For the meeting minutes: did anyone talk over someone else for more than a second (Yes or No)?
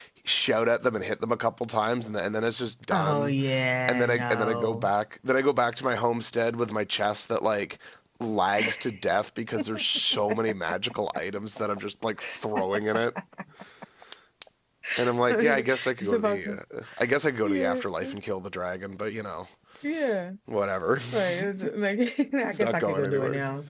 Yes